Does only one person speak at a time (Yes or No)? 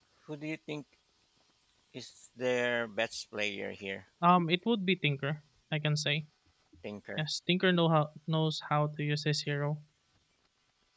Yes